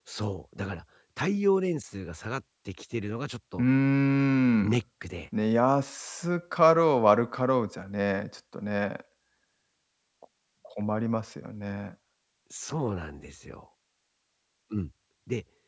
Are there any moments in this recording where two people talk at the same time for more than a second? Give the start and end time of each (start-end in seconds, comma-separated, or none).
none